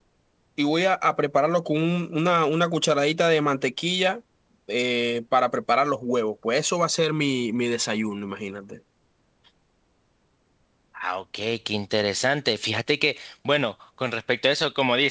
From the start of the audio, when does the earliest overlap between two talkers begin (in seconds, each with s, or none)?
none